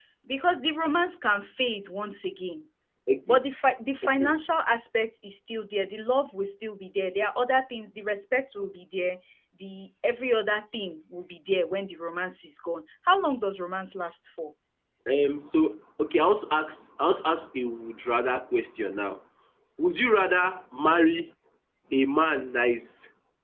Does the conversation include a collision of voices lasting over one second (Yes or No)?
No